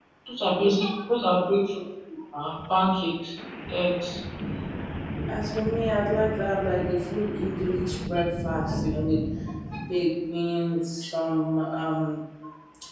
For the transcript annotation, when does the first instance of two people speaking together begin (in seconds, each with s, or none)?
none